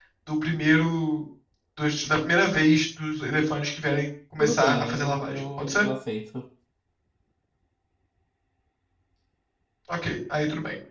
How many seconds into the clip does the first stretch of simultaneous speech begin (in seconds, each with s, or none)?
4.4 s